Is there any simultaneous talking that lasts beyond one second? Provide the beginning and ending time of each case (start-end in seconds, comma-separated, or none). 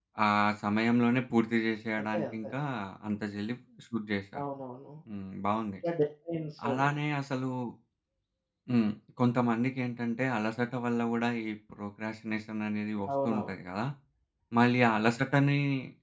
none